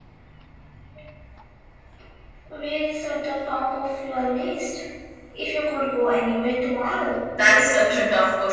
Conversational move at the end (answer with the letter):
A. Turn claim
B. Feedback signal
A